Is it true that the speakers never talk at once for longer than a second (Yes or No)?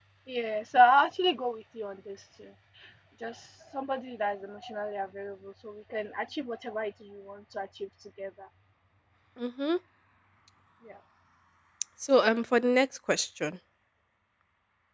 Yes